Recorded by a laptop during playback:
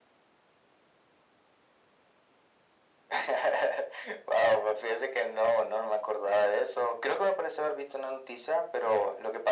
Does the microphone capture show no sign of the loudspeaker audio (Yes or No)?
No